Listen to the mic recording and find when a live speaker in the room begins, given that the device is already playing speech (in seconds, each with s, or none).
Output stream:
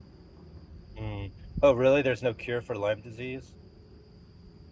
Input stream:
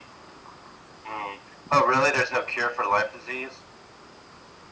none